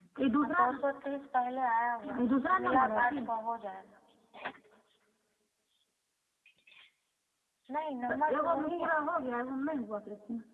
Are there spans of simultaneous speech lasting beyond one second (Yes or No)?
Yes